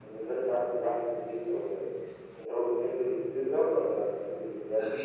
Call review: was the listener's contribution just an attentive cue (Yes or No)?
No